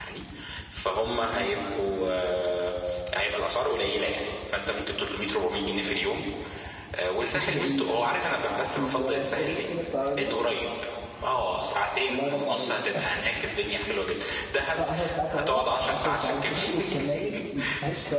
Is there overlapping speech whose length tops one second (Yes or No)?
Yes